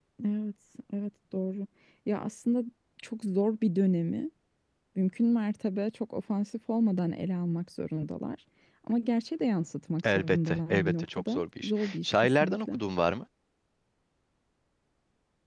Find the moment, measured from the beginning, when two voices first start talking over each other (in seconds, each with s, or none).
10.0 s